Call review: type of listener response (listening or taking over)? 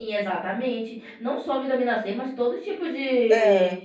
listening